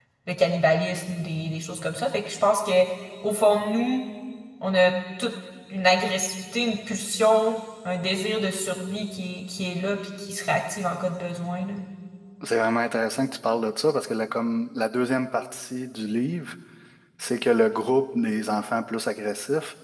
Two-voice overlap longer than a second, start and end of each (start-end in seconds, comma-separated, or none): none